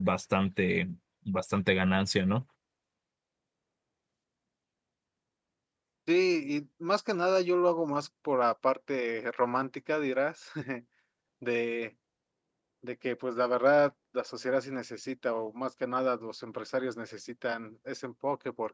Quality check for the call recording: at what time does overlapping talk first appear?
none

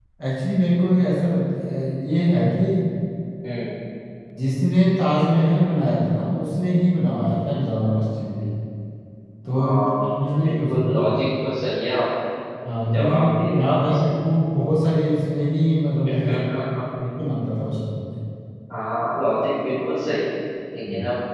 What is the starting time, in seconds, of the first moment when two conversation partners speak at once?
9.5 s

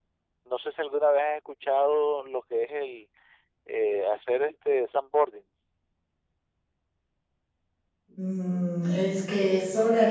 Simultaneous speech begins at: none

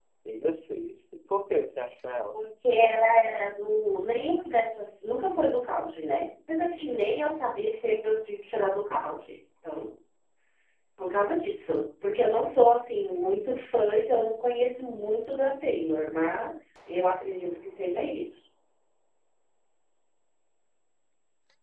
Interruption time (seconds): none

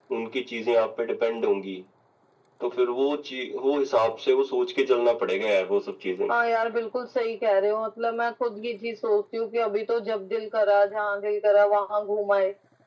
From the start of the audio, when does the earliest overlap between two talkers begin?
none

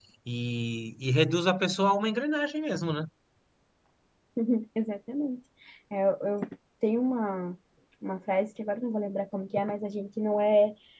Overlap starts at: none

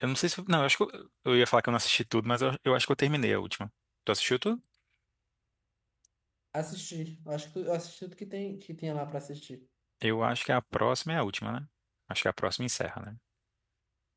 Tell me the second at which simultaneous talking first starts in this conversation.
none

